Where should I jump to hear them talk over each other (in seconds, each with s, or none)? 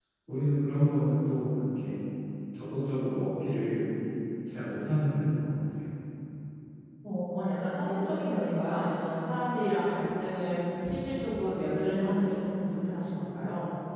none